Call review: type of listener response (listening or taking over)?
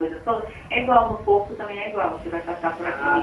taking over